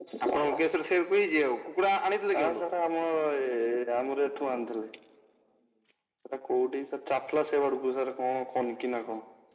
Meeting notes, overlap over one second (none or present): none